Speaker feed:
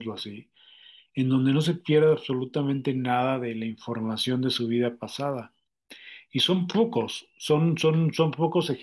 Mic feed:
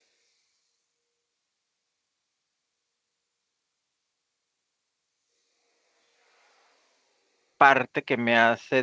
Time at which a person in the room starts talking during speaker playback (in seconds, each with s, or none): 7.6 s